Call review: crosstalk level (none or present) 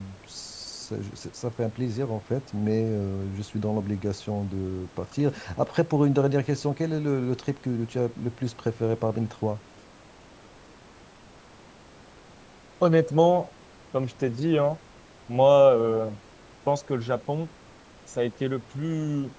none